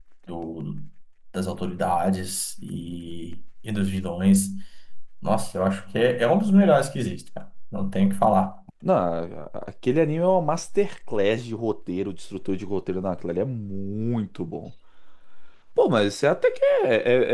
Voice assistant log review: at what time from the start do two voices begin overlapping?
none

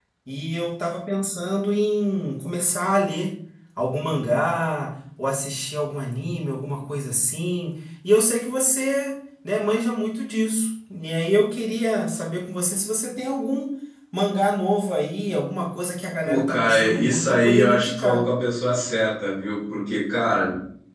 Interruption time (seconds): 16.2 s

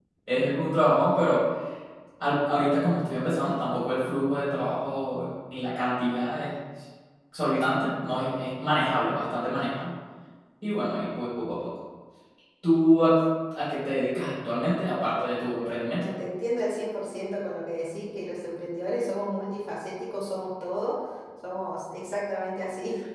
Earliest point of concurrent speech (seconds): none

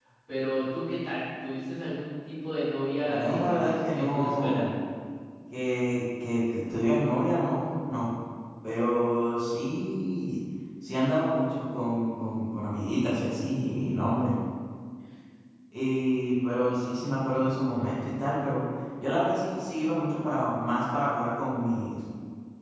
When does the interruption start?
3.0 s

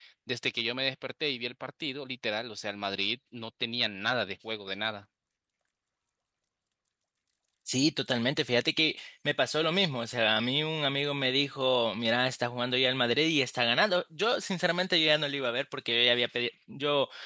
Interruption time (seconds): none

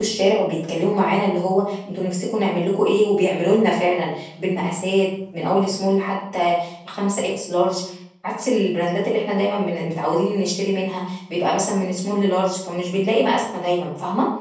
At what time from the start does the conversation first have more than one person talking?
none

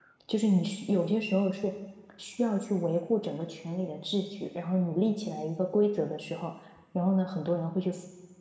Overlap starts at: none

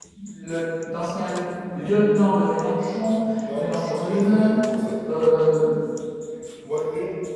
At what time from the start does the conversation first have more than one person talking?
3.4 s

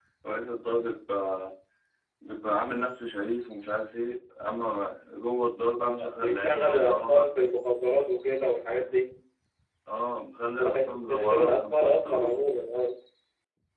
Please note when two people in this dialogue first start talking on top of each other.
5.8 s

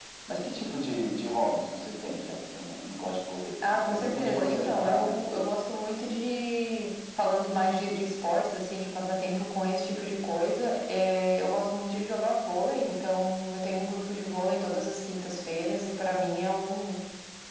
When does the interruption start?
3.9 s

